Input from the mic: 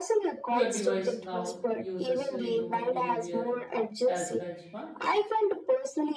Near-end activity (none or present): present